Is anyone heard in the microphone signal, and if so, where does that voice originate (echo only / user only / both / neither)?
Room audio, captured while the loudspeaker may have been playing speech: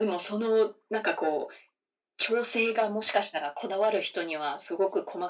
echo only